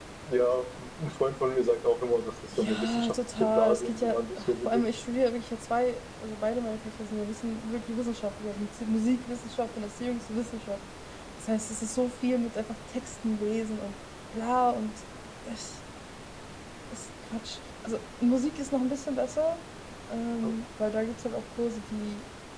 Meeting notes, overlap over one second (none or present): present